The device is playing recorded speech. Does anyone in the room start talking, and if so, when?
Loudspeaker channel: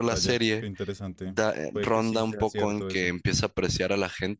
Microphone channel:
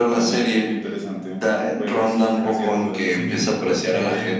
2.7 s

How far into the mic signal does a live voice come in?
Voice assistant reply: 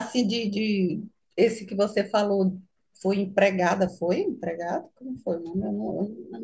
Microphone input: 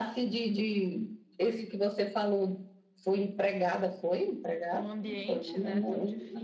4.7 s

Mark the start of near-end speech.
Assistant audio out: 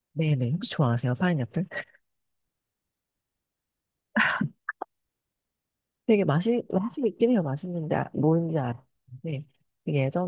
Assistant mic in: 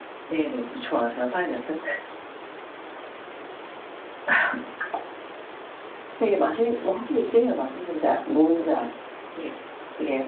none

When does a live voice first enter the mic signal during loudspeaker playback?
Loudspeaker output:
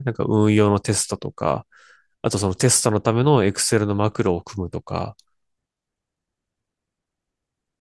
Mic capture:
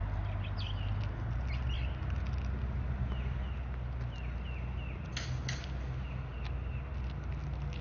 none

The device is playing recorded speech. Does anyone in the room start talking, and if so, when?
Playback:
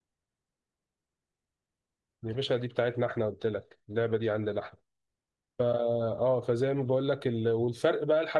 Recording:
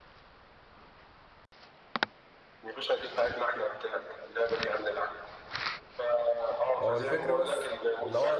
6.8 s

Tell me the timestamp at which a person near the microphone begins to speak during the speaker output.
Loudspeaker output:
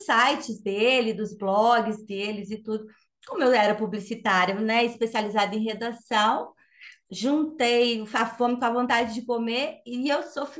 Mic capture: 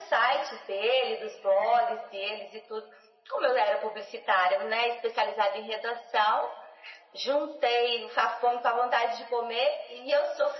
none

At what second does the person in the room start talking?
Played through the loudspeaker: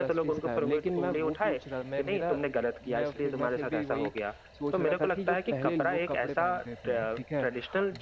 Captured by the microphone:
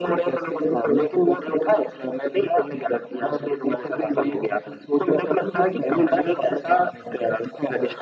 none

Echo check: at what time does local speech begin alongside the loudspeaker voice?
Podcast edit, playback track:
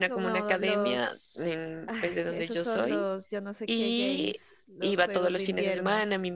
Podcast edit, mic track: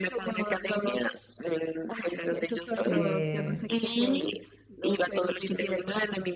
2.8 s

